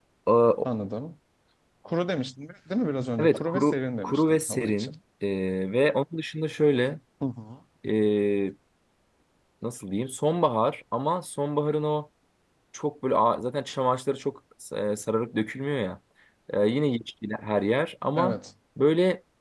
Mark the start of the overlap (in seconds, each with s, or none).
3.2 s